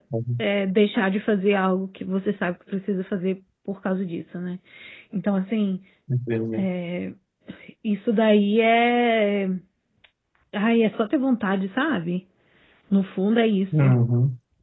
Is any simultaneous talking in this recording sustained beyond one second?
No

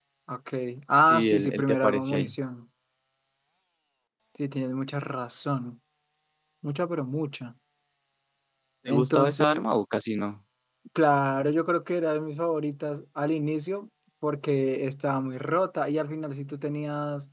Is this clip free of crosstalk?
No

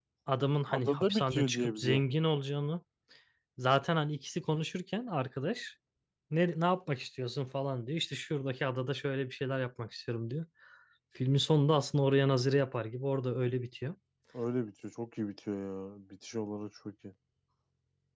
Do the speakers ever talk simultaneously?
Yes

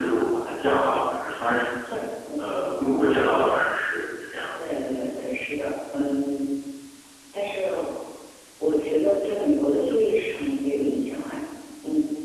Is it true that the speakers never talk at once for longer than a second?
Yes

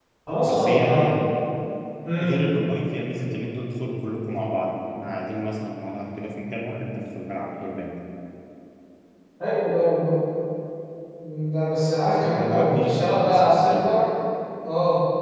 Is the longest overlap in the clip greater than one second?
Yes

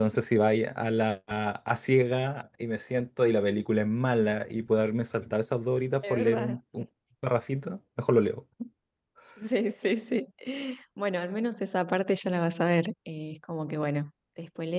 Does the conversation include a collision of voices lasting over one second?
No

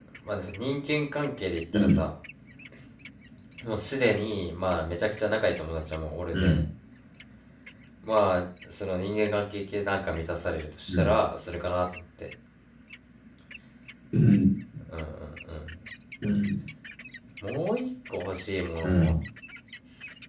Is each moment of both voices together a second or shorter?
Yes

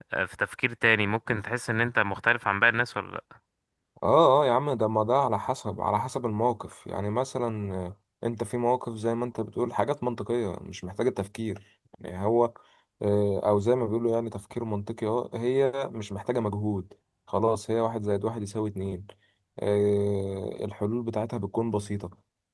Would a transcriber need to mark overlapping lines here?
No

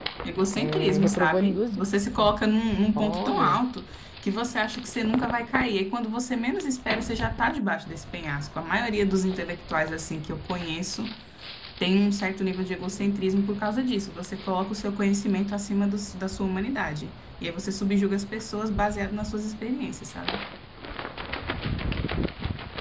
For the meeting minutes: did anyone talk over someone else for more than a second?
Yes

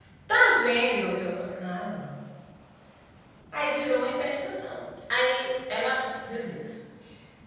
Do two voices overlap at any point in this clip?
No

